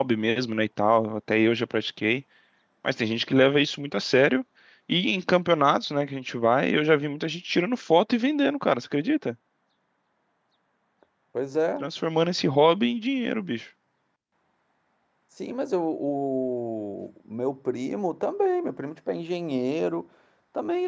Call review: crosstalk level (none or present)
none